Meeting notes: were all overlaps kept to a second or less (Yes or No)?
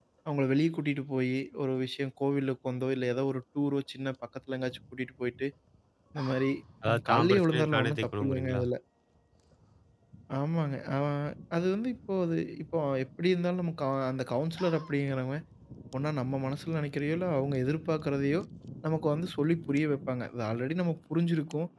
No